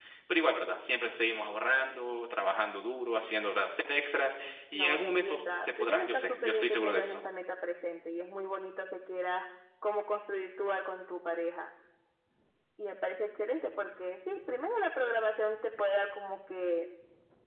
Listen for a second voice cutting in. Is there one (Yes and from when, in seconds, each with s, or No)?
Yes, from 4.7 s